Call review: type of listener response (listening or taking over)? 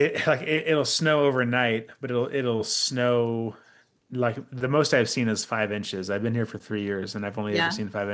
listening